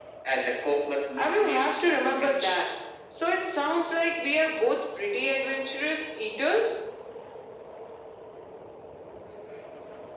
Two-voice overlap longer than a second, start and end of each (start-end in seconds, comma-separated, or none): 1.2-2.6